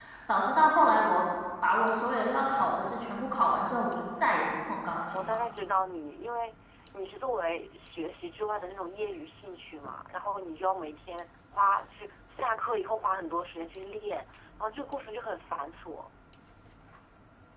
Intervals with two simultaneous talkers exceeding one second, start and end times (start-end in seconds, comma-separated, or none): none